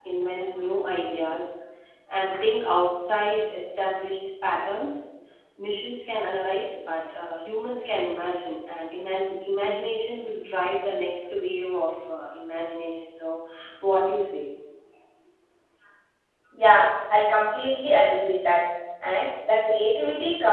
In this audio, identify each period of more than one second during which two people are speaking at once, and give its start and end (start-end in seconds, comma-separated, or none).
none